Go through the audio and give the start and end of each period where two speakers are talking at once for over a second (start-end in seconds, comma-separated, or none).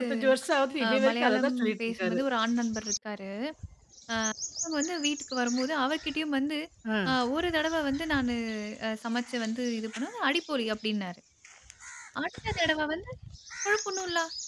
0.8-2.2